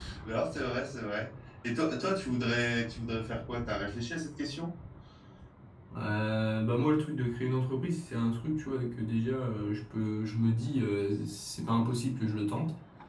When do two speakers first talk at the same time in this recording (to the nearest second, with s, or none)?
none